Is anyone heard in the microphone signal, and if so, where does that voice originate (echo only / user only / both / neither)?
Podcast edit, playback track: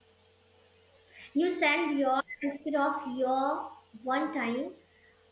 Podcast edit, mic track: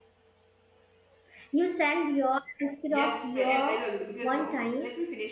both